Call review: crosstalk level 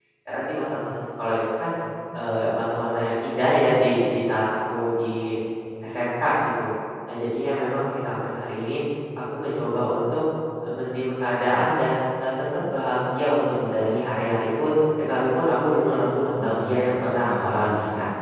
present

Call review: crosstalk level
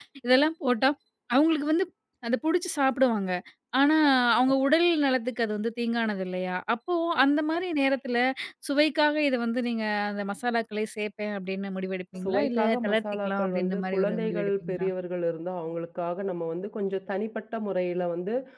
present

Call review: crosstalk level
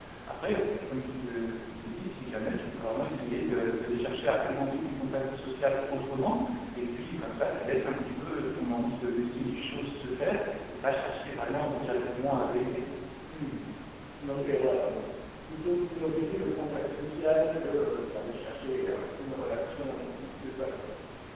none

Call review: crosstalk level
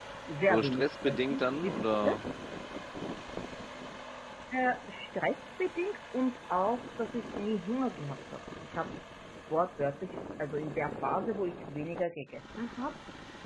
present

